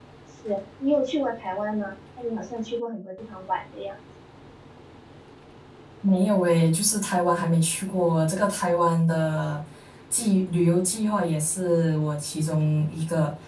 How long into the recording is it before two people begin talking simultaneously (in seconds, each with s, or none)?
none